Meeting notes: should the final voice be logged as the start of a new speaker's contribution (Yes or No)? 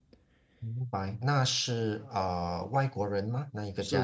Yes